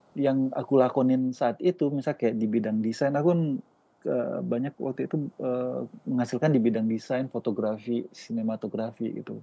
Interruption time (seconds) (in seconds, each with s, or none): none